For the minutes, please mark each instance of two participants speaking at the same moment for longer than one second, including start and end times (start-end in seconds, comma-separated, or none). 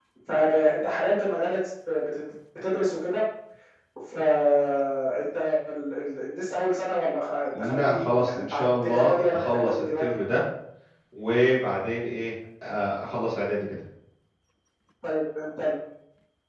7.6-10.0